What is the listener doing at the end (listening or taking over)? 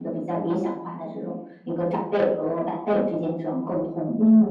taking over